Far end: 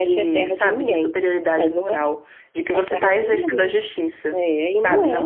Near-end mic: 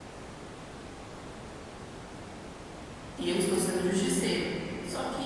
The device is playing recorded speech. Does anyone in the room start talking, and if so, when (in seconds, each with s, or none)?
3.2 s